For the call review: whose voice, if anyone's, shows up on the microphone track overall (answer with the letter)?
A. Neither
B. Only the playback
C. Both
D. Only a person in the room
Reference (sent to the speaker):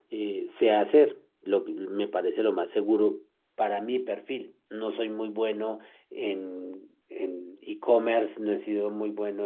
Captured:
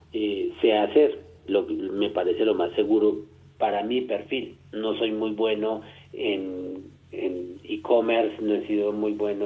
B